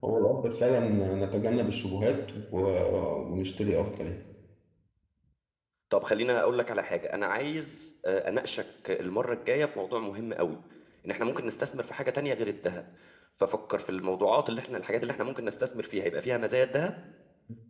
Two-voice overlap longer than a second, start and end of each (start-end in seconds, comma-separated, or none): none